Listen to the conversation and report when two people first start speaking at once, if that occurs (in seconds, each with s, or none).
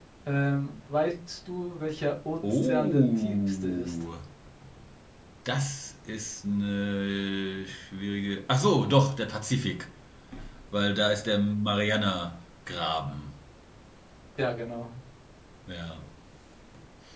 2.4 s